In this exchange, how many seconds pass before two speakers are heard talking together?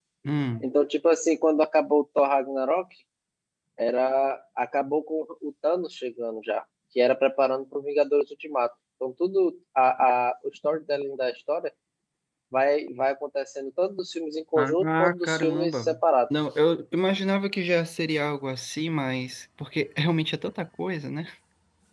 14.6 s

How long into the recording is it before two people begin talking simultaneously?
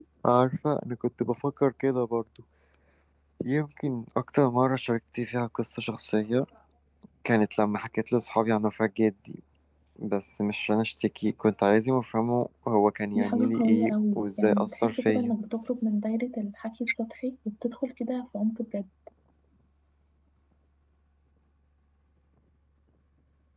13.2 s

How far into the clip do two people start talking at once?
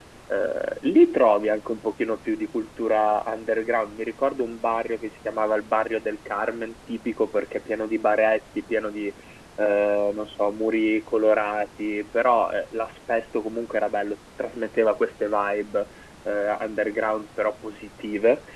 none

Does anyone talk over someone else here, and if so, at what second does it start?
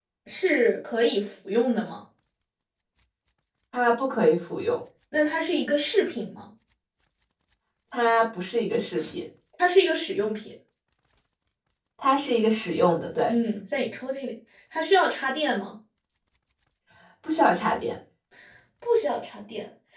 none

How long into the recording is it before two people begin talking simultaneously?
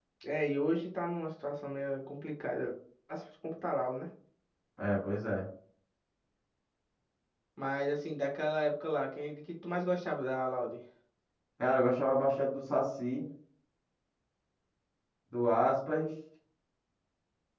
none

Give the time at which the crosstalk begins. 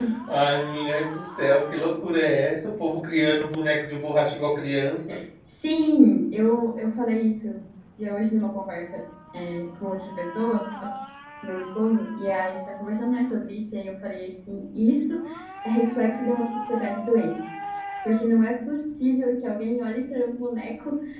none

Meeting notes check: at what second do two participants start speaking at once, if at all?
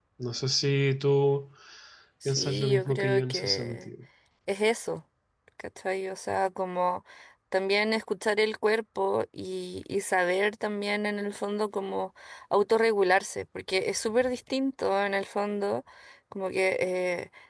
2.2 s

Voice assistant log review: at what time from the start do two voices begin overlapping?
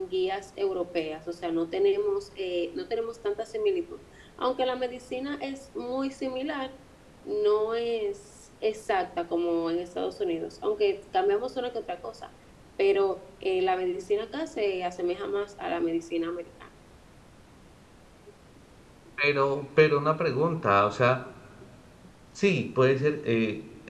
none

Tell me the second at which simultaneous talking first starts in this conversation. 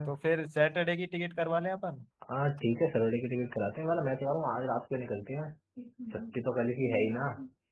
none

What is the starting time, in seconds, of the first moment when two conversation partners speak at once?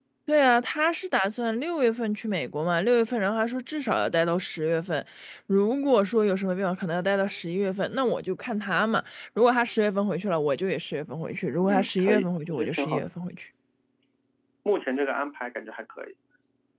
11.6 s

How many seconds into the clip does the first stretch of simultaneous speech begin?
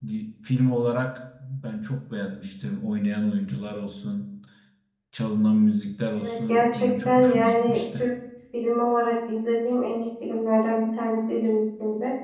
6.2 s

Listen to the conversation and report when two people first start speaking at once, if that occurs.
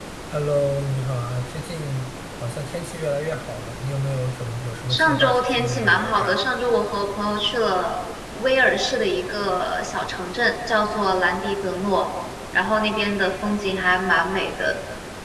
4.9 s

